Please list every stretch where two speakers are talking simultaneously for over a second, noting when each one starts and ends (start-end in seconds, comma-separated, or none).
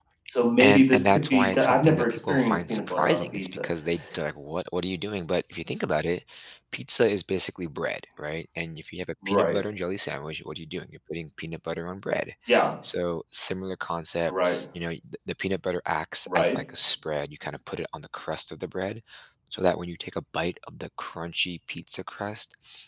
0.6-3.6